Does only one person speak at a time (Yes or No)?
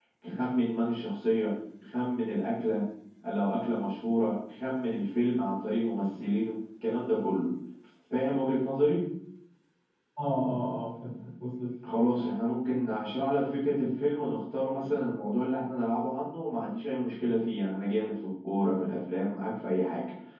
Yes